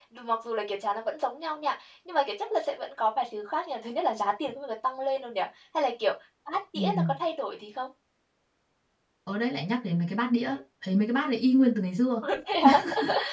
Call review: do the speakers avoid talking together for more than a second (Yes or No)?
Yes